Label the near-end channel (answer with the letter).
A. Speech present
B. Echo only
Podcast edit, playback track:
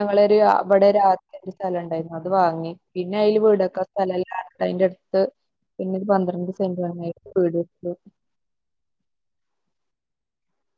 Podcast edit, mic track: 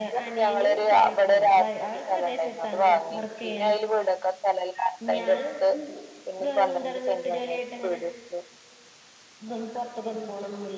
A